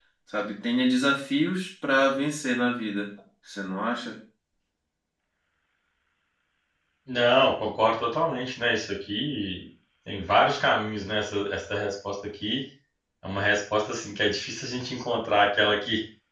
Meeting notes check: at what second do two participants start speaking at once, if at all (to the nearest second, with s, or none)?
none